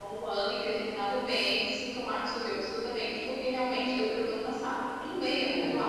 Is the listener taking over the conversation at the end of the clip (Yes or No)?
No